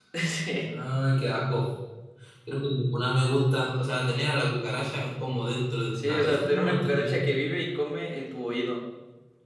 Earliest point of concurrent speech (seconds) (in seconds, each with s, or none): 6.0 s